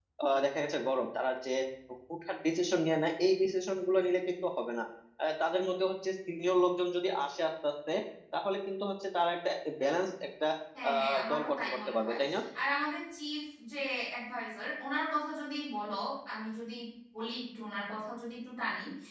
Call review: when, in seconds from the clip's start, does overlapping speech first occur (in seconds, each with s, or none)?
10.9 s